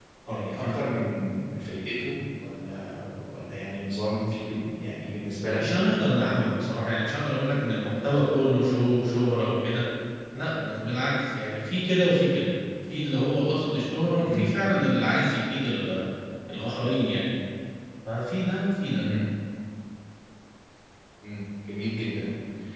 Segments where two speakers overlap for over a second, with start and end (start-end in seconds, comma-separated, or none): none